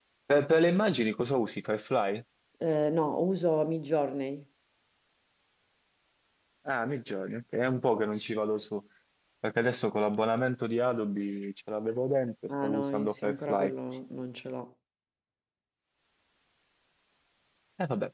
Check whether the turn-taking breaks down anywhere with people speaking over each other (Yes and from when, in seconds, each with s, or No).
Yes, from 12.5 s